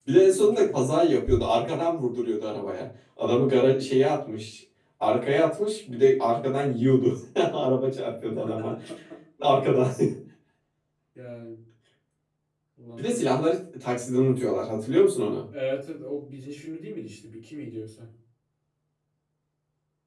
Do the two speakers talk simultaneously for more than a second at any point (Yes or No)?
No